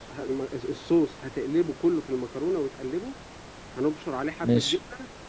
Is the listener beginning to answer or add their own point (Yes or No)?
No